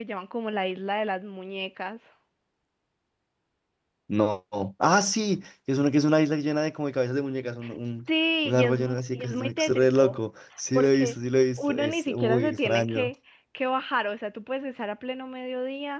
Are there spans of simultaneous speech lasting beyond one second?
Yes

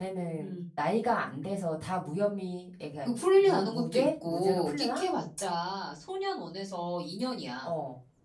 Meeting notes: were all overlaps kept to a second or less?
No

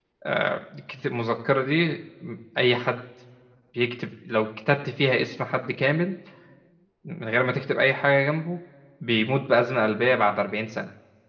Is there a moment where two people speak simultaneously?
No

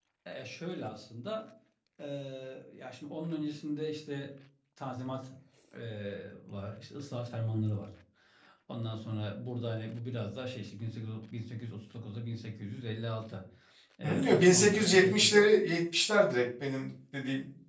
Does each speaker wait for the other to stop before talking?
No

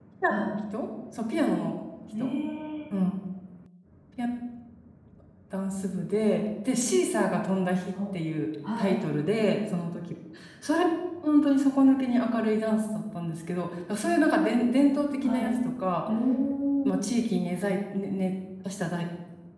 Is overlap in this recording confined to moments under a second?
Yes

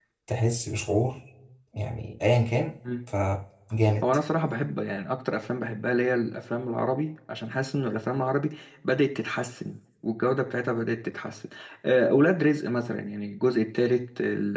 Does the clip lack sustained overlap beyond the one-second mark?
Yes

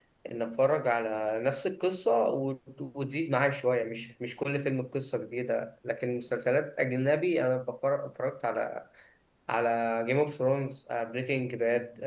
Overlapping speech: No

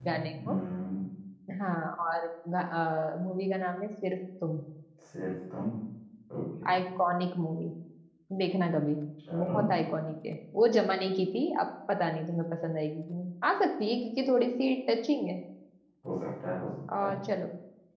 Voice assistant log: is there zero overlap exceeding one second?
Yes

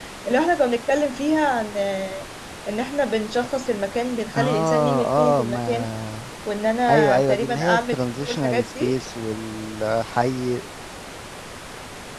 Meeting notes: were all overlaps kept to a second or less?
No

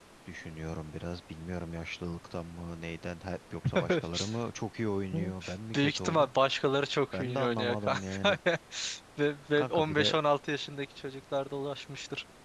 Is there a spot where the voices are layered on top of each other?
Yes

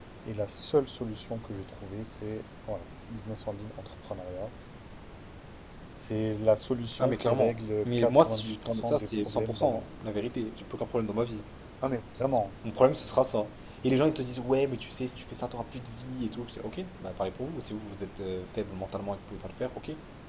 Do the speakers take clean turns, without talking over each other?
No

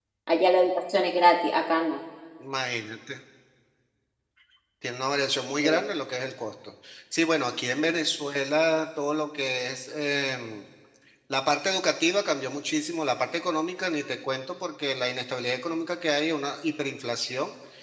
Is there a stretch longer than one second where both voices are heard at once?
No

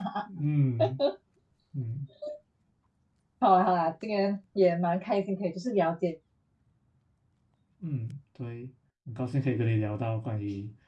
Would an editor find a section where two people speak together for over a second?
No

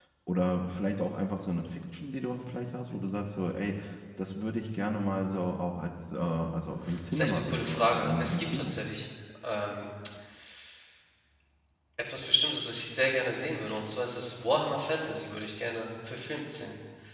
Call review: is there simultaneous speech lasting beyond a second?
Yes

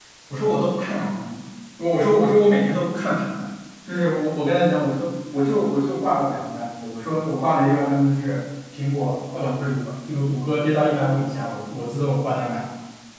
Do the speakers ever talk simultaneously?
No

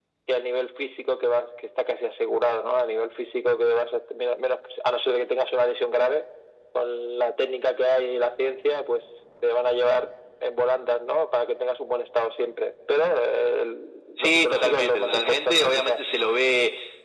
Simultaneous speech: Yes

